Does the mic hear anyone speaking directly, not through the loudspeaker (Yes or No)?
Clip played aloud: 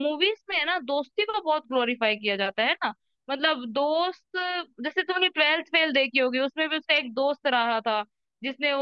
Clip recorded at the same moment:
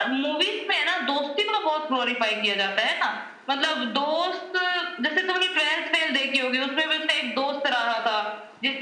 No